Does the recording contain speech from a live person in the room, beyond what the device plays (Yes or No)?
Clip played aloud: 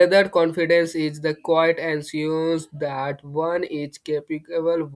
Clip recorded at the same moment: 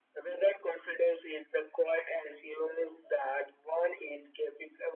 No